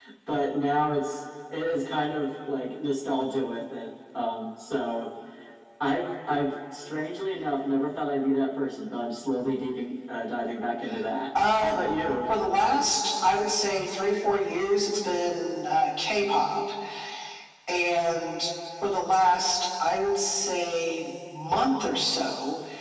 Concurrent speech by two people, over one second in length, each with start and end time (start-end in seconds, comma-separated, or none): none